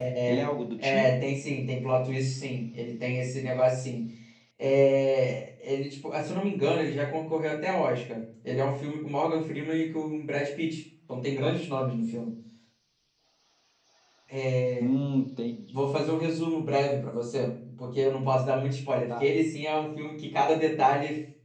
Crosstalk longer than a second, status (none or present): none